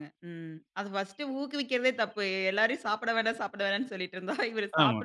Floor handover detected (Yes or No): Yes